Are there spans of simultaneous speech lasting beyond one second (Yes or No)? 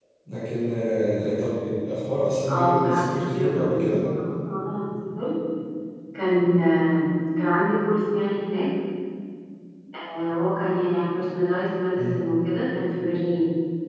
Yes